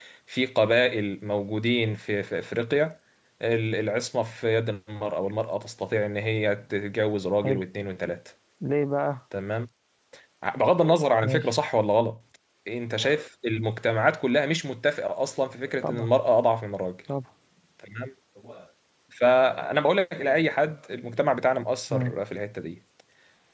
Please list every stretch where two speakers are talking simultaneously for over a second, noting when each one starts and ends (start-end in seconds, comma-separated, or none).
none